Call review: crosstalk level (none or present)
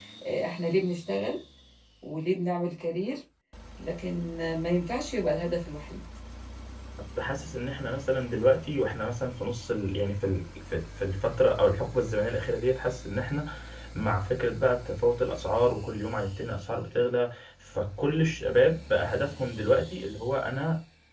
none